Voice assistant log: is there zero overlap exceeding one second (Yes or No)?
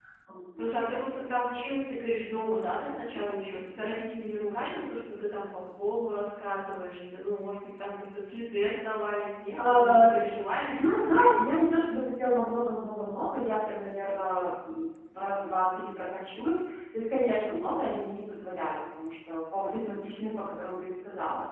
Yes